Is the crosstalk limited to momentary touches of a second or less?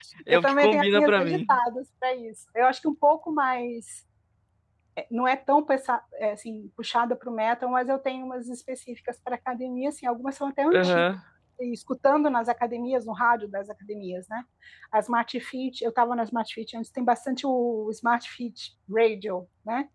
No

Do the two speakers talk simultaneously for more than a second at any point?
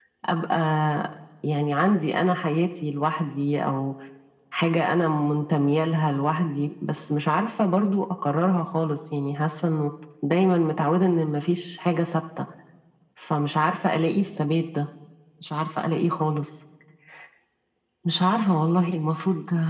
No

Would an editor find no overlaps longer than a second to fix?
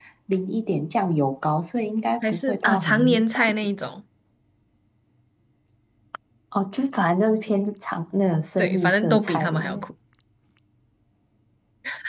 No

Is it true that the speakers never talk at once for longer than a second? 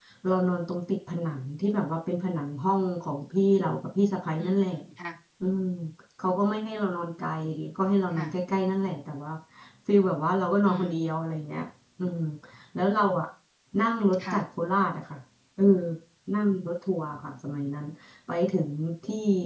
Yes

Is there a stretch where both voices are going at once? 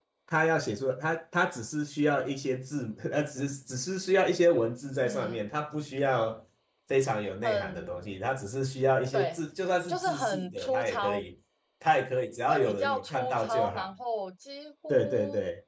Yes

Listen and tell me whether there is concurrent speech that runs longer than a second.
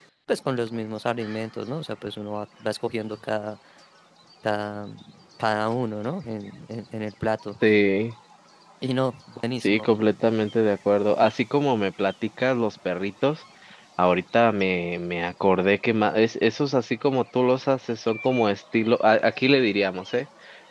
No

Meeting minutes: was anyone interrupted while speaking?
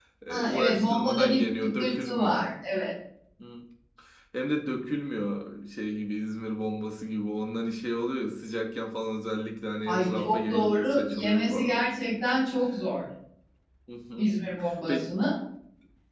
Yes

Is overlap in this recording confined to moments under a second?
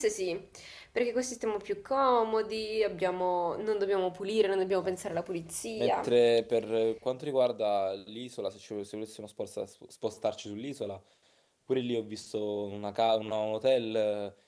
Yes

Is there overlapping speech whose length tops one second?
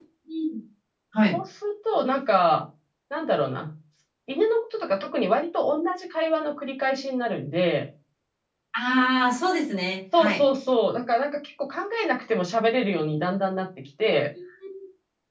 No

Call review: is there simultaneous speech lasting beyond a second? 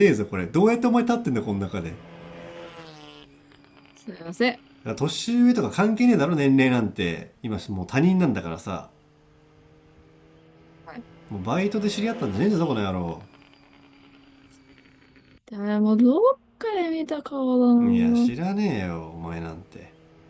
No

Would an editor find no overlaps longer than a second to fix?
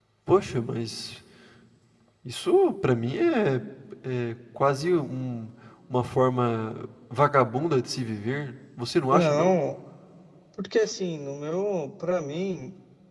Yes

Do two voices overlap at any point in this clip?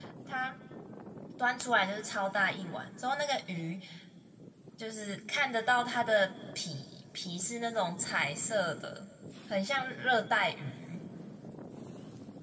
No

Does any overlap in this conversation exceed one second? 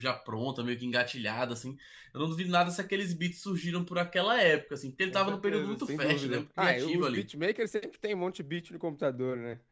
Yes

